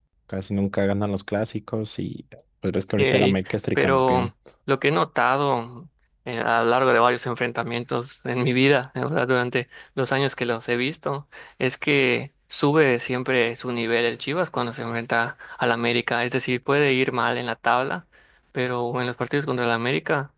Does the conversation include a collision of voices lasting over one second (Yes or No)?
Yes